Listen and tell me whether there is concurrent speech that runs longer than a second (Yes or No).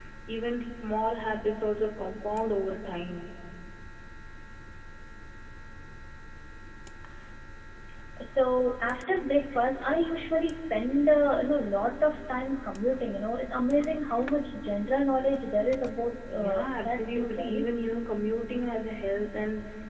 Yes